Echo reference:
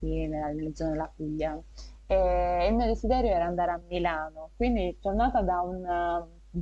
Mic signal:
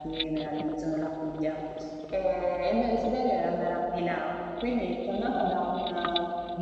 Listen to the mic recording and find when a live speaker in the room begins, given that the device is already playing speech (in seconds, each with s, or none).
none